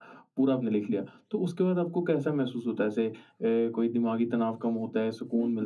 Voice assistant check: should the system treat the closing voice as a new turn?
Yes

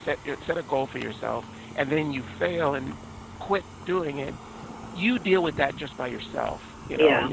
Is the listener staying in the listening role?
Yes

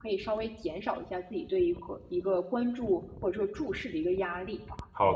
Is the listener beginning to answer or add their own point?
Yes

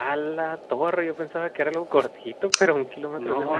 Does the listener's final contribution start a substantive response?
Yes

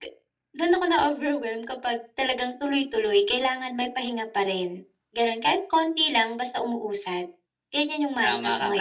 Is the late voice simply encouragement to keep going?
No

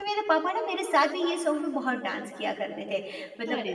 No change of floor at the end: Yes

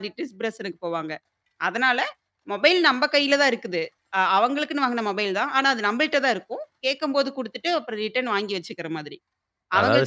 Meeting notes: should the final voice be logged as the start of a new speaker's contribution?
Yes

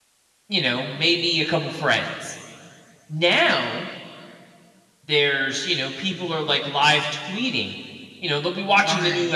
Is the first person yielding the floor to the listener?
No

